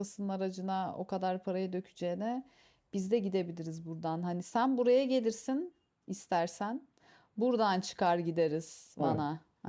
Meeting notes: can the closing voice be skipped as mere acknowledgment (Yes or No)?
No